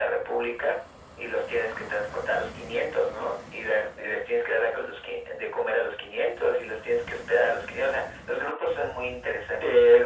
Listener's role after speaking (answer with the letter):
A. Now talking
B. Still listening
A